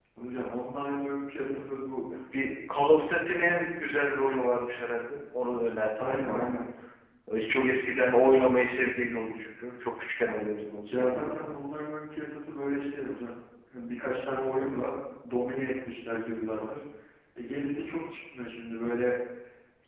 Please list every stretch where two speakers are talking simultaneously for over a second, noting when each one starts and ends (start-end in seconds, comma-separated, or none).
none